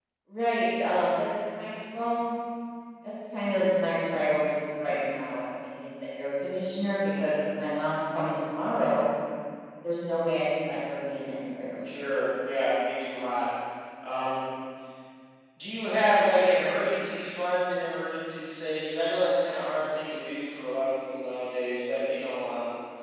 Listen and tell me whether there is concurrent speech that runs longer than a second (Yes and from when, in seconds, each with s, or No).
No